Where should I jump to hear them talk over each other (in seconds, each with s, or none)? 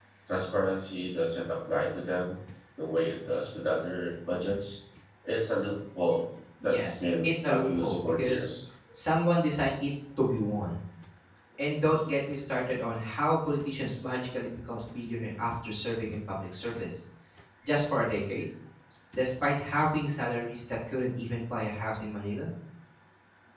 6.6 s